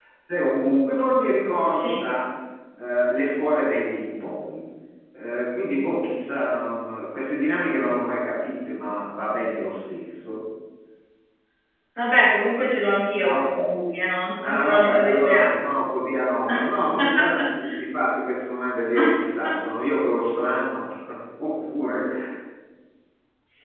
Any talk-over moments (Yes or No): Yes